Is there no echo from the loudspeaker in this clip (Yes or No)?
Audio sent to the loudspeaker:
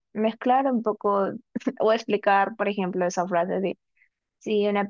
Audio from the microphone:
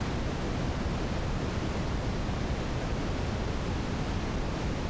Yes